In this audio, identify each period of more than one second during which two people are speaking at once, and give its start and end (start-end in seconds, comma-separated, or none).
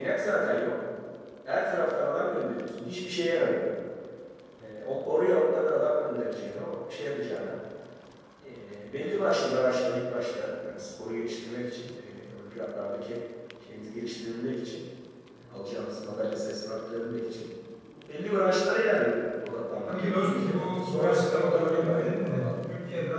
19.9-22.5